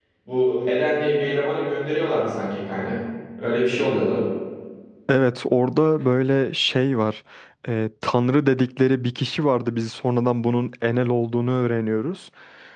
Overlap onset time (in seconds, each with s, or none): none